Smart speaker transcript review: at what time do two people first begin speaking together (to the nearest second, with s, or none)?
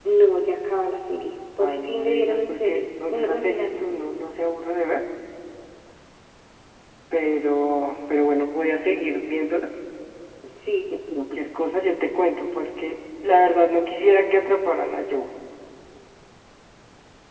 2 s